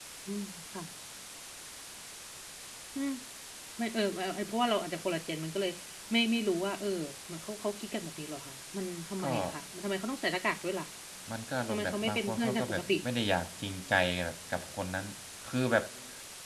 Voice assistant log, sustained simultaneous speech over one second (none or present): present